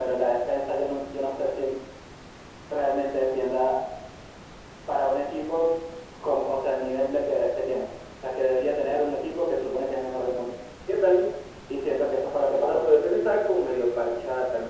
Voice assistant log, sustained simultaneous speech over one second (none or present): none